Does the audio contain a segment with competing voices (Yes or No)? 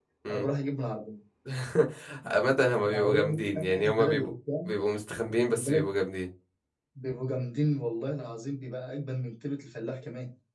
Yes